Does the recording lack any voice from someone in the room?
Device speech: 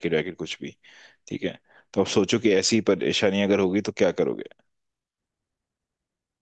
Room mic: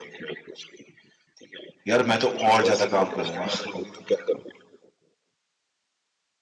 No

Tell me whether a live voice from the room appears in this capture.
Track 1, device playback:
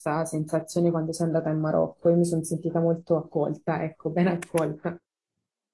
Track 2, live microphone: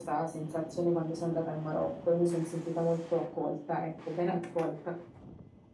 No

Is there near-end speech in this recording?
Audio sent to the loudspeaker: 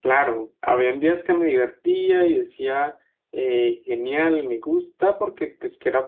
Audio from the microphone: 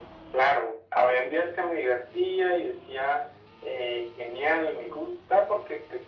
No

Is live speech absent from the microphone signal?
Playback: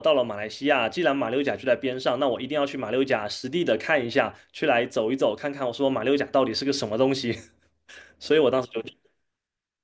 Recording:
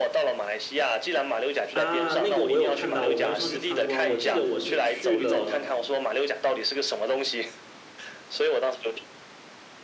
No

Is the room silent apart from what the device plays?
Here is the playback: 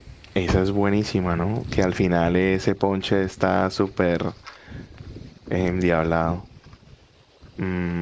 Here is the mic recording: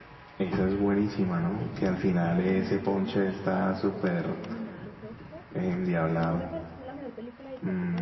No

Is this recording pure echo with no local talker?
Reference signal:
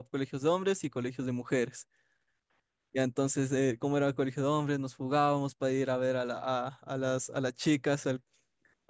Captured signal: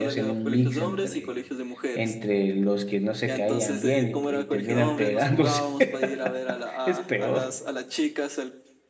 No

